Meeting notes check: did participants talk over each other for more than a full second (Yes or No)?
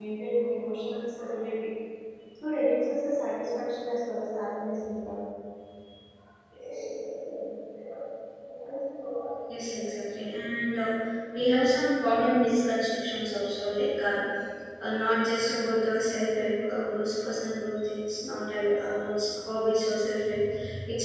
No